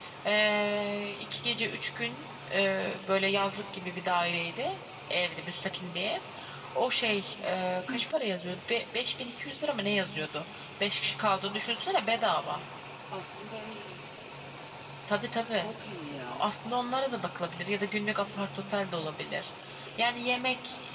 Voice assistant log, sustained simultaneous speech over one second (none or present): none